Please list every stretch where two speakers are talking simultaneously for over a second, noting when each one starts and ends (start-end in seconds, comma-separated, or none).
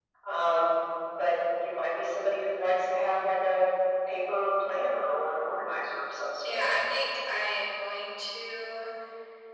none